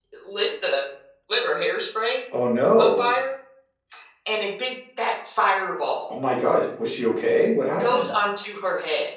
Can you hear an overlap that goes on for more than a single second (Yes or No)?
No